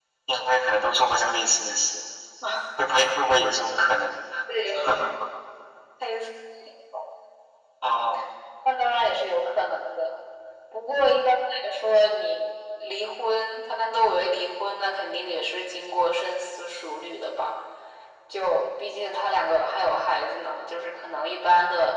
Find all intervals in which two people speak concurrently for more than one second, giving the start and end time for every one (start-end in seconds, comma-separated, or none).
none